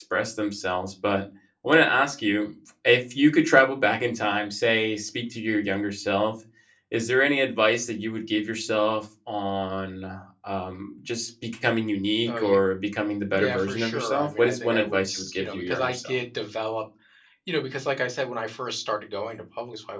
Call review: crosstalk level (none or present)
present